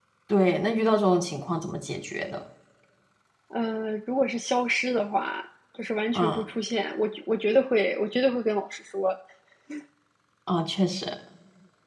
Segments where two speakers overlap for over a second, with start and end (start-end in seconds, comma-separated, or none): none